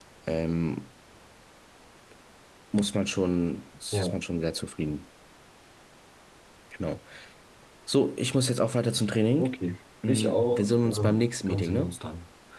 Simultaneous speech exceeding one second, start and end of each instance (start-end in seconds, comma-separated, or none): 10.1-11.9